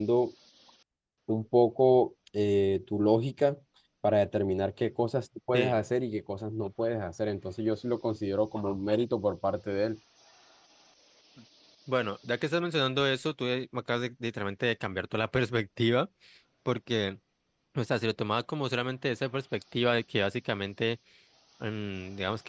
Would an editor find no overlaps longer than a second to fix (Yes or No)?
Yes